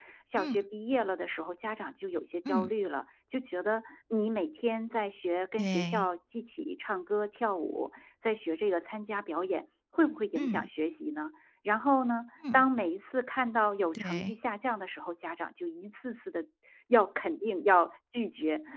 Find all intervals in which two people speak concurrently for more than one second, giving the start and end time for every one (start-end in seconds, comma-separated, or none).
none